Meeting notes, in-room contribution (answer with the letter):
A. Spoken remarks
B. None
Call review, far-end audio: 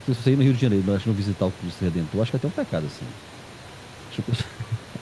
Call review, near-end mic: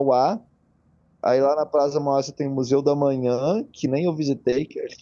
A